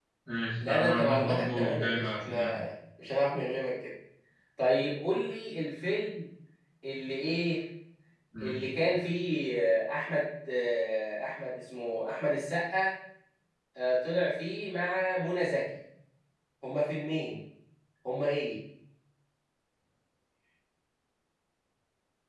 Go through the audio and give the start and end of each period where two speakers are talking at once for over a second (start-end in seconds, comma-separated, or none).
0.6-2.4